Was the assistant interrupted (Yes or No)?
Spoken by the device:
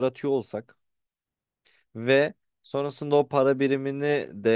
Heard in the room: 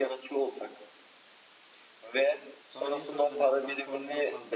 Yes